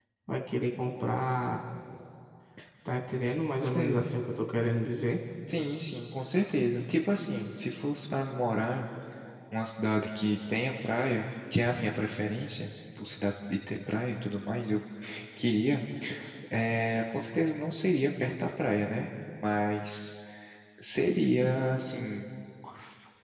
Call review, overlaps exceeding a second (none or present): none